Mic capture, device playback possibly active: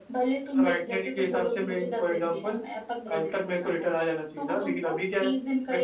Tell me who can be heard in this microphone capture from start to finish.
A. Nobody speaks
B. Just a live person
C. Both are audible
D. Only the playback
D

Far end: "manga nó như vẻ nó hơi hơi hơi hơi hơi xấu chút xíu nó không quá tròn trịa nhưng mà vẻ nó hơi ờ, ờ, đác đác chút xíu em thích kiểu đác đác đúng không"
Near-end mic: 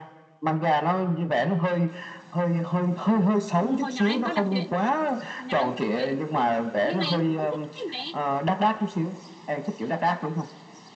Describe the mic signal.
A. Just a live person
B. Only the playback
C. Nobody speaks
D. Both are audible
D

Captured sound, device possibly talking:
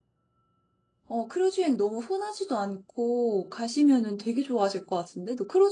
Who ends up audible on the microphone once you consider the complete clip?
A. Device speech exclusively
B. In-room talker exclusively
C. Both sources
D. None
B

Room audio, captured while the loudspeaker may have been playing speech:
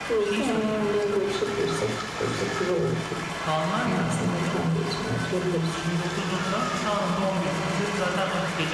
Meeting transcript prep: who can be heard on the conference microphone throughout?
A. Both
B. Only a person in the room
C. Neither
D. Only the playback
A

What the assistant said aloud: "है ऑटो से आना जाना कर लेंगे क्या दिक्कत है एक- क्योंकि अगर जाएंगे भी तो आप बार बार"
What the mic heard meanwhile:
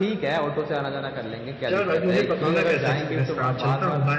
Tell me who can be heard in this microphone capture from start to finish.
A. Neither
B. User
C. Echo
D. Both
D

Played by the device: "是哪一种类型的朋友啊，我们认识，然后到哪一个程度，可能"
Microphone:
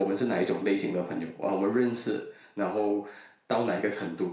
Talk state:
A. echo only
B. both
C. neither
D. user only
A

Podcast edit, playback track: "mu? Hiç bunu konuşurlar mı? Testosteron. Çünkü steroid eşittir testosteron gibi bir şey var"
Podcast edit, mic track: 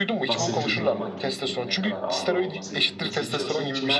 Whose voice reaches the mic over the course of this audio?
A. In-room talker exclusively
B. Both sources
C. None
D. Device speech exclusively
B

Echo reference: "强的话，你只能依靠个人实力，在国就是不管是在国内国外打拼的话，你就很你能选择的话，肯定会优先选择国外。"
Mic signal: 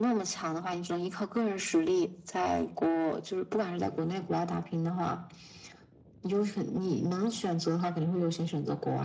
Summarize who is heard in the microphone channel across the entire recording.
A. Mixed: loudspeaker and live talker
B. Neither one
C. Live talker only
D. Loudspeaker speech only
D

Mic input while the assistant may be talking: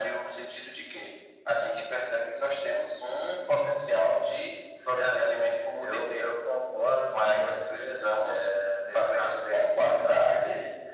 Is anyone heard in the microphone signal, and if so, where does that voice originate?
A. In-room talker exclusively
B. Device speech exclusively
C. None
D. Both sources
B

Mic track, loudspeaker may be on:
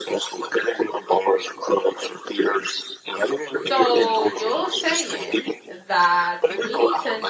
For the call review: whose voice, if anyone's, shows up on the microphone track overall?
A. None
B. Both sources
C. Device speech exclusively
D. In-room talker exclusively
B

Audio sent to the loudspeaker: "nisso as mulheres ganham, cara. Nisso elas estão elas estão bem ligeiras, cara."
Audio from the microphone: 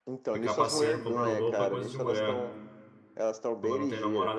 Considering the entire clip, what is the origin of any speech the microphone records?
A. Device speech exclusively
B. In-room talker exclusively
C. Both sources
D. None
C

